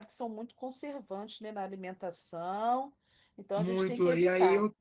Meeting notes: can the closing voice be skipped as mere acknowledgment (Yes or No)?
No